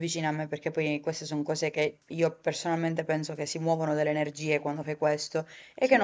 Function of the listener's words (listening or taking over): listening